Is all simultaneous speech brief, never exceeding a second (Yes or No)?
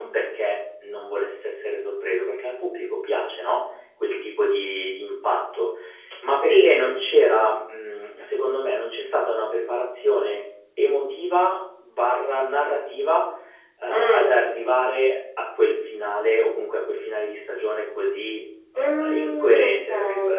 No